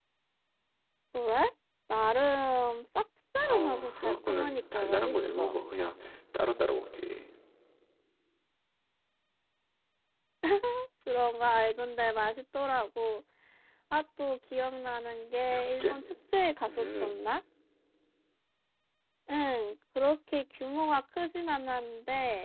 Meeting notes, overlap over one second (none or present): present